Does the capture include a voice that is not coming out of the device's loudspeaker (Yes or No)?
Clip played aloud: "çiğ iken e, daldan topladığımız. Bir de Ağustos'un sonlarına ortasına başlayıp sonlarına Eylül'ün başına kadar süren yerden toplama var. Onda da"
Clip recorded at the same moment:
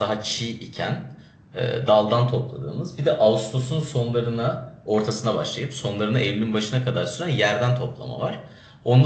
No